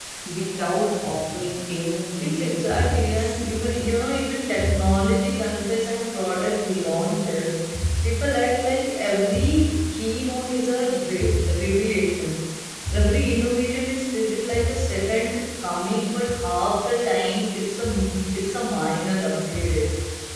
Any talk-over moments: Yes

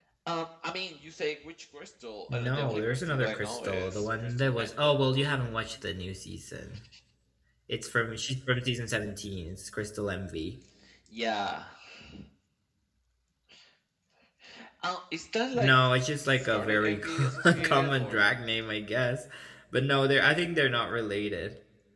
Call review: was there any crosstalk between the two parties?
Yes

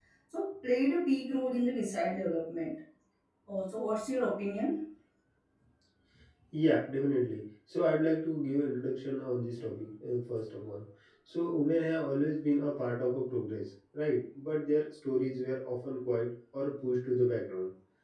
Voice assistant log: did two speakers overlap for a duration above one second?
No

